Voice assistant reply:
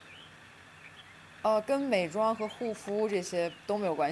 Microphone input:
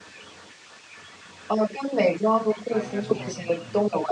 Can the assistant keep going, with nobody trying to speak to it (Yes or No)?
No